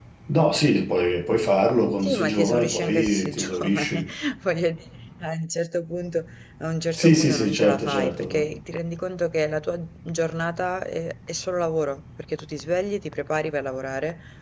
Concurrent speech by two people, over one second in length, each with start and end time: 2.0-4.0, 6.9-8.4

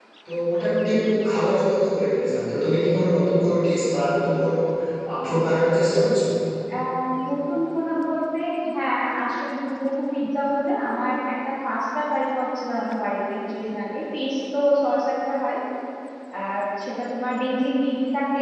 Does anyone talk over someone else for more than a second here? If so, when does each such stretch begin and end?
none

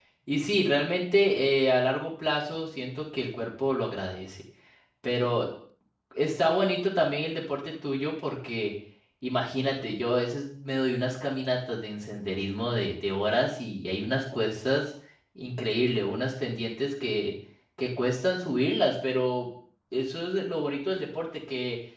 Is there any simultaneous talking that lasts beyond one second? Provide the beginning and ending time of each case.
none

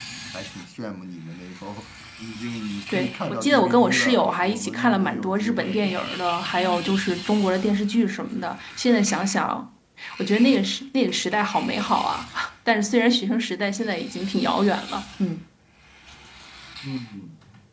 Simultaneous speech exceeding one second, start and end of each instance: 2.9-6.1

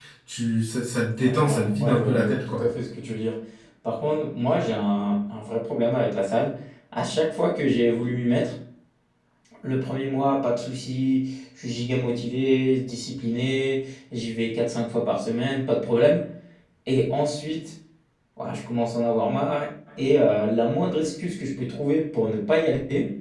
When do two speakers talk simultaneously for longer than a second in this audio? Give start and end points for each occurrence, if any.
1.2-2.6

